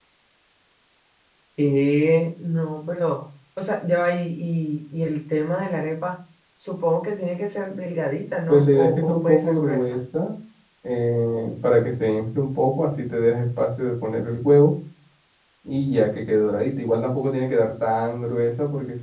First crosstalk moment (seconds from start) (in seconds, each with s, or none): 8.5 s